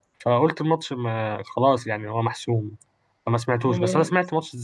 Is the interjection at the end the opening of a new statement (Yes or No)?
No